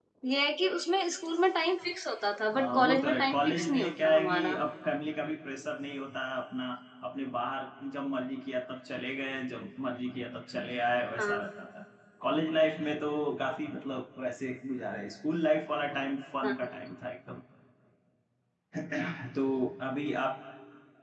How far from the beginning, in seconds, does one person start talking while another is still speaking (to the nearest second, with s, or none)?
3 s